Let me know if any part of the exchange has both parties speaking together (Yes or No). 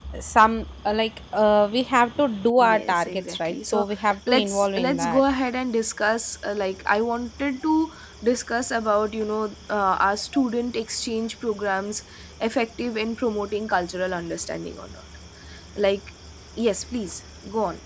Yes